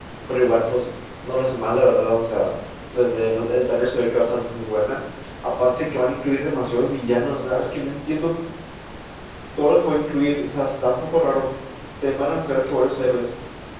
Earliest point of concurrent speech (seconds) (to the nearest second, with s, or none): none